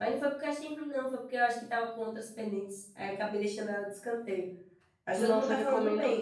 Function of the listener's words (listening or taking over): taking over